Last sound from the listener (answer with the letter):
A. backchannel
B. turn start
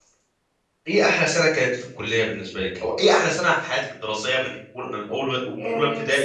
B